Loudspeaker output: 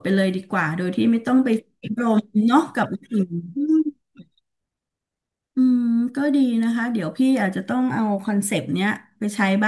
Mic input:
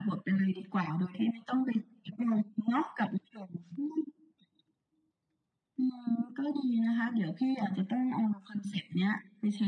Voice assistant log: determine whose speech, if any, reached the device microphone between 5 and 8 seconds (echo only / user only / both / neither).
echo only